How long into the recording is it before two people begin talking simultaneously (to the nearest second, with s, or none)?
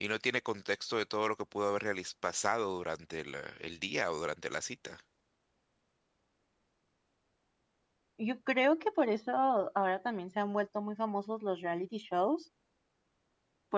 none